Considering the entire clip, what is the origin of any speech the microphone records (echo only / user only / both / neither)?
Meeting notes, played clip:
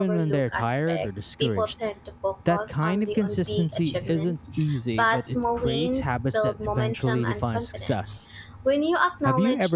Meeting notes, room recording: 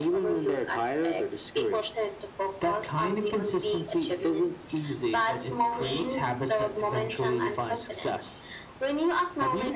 echo only